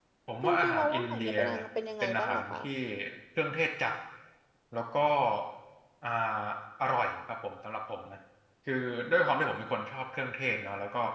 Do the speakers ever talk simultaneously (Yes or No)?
Yes